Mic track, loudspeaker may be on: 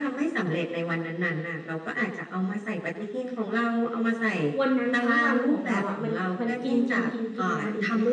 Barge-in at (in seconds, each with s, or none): 4.6 s